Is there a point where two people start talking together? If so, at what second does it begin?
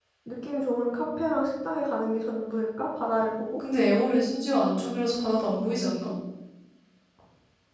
none

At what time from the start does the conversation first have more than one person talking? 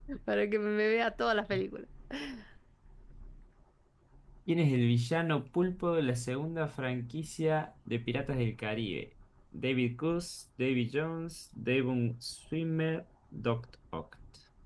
none

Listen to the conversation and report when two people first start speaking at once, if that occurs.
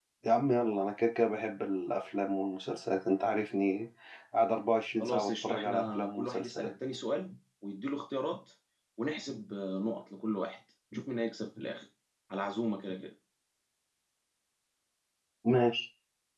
5.0 s

